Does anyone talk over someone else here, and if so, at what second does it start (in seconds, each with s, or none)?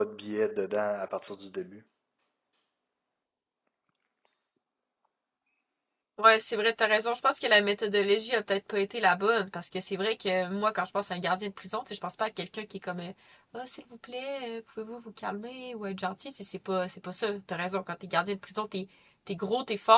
none